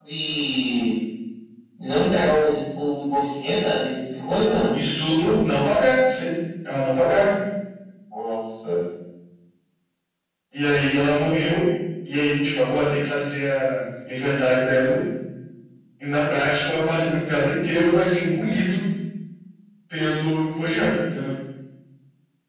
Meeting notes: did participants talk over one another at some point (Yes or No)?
No